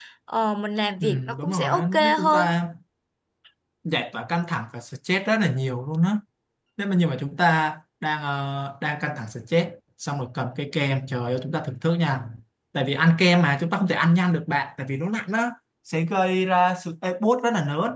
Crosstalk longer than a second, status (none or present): present